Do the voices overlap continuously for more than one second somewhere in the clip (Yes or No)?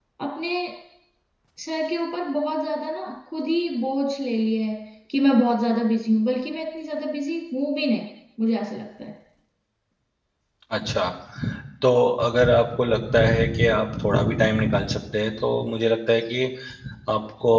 No